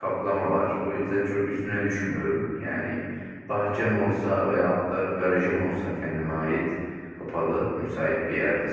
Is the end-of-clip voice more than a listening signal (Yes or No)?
No